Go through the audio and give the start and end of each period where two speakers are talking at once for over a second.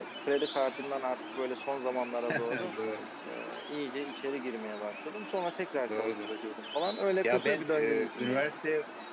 7.2-8.5

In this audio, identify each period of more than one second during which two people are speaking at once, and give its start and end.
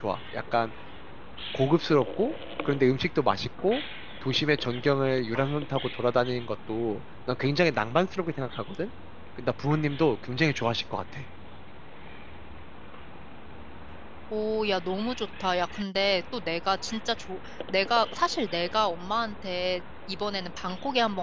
none

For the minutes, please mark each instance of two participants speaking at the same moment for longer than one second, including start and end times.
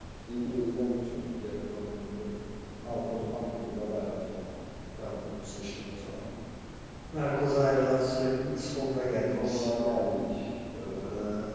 none

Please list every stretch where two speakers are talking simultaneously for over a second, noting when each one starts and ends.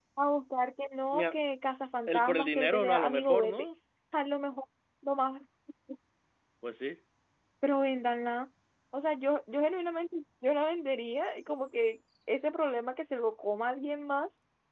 2.1-3.6

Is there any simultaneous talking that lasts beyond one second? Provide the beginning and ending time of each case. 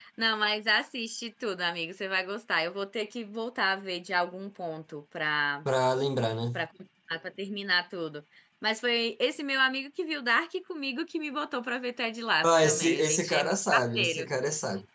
12.4-14.3

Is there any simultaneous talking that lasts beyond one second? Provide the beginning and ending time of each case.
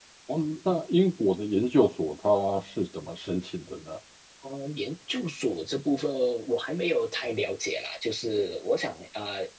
none

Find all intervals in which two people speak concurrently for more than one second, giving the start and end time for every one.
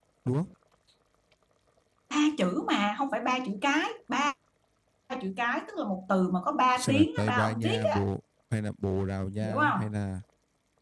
6.8-8.0

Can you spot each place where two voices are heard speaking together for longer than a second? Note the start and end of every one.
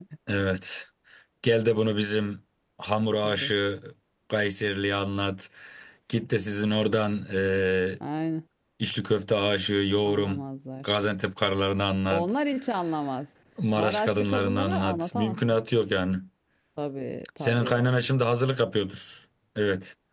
13.8-15.4

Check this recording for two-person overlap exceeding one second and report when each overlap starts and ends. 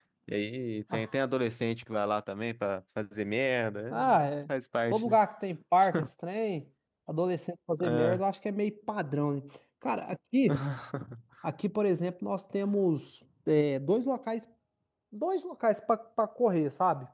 none

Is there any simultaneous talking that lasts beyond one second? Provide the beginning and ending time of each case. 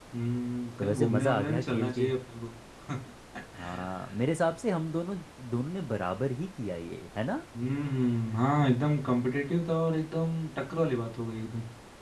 0.8-2.1

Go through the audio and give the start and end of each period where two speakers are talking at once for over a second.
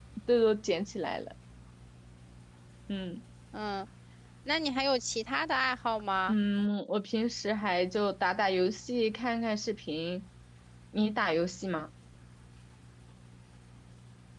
none

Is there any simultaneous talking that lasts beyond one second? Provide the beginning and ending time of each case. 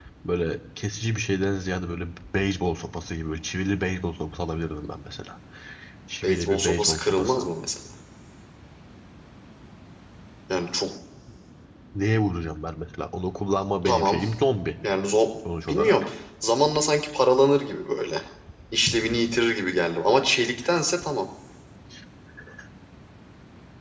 6.2-7.5

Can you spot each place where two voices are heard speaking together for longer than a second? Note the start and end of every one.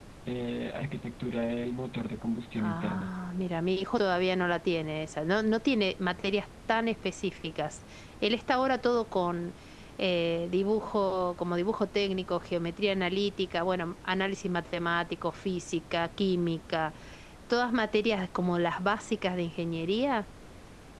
none

